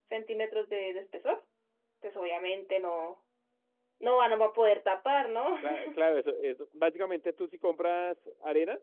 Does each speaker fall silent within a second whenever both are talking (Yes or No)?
Yes